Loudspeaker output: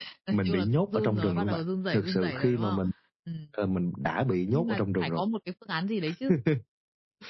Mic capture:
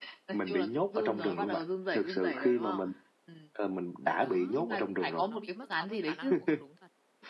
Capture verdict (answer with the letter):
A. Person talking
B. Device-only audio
A